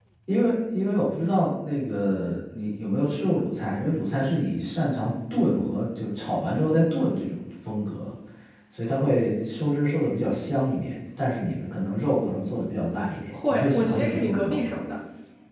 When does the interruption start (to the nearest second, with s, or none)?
13 s